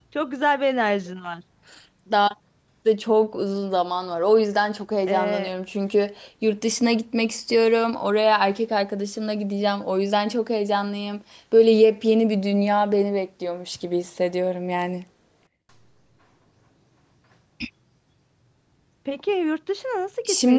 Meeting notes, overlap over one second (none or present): none